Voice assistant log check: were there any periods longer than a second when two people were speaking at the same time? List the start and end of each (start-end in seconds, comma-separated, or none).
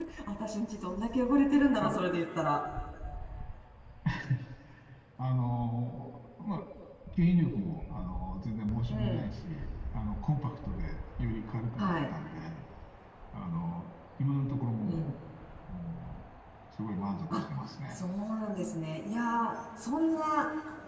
none